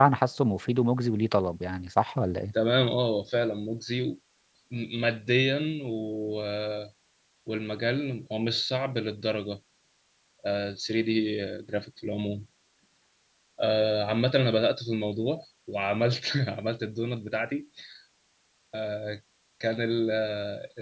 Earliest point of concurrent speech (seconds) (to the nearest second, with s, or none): none